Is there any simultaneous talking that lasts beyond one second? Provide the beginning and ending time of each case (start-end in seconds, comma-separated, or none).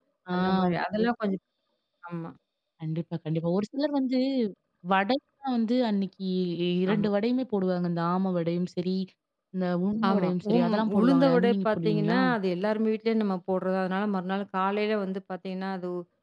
10.1-12.2